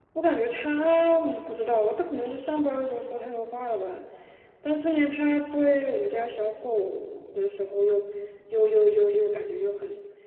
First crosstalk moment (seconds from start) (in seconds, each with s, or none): 0.5 s